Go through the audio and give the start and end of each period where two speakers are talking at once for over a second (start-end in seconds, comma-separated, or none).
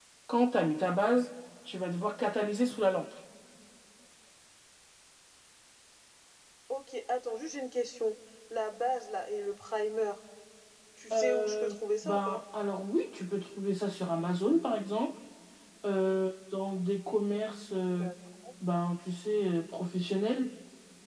11.1-12.4